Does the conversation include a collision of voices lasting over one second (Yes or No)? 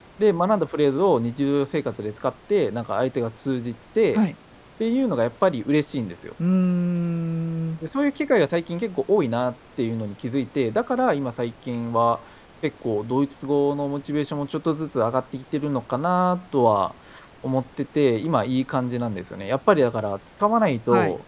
No